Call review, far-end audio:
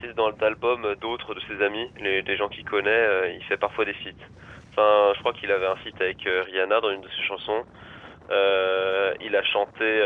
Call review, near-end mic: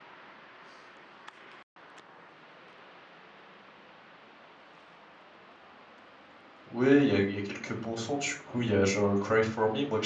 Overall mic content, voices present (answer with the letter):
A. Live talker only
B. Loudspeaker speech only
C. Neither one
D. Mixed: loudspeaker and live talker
A